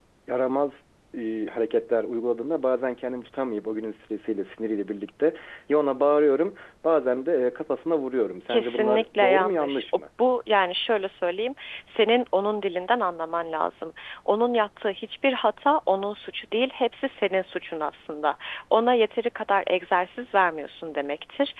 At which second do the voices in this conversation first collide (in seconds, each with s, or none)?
8.5 s